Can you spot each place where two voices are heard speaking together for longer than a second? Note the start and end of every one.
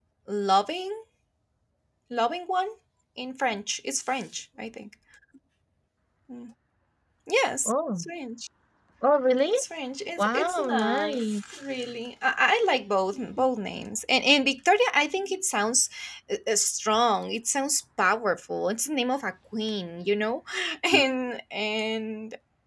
10.2-11.4

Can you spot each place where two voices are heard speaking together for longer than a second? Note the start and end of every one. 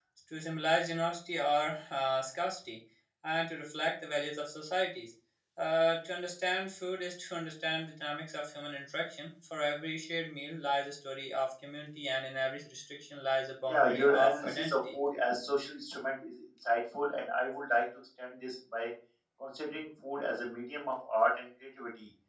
13.7-14.9

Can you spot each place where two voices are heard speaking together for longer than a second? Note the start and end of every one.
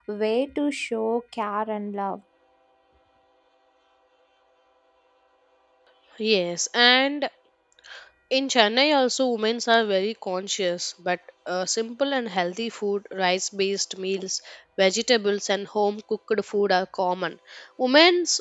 none

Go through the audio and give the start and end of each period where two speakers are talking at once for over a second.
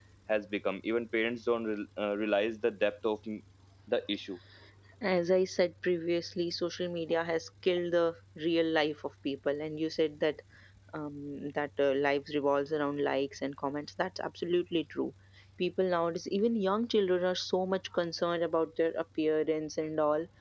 none

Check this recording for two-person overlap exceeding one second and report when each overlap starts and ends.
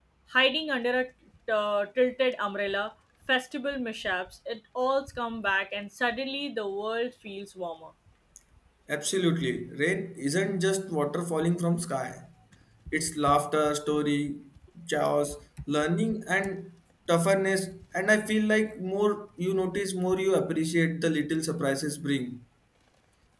none

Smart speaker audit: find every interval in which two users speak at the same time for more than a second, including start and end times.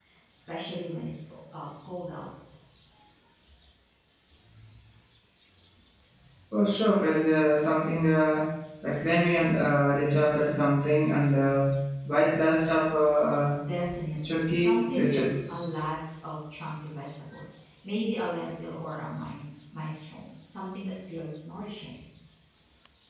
14.3-15.7

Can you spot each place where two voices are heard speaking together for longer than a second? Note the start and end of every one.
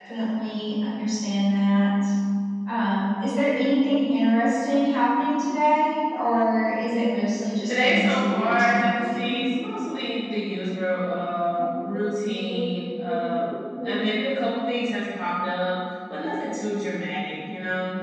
7.7-9.3

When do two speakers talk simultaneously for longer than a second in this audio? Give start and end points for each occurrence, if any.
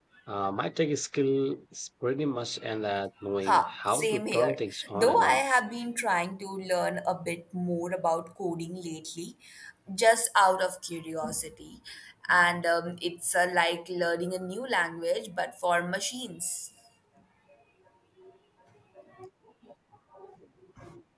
3.4-5.5

